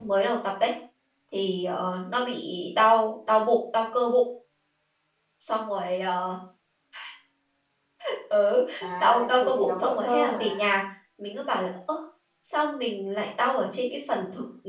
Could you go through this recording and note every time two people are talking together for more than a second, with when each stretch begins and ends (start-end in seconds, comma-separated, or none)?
9.0-10.7